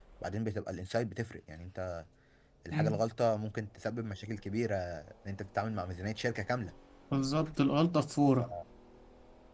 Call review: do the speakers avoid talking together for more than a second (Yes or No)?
Yes